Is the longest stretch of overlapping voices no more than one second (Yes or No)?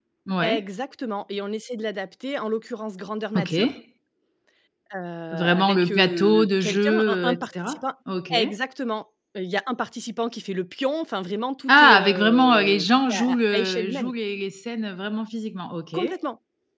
No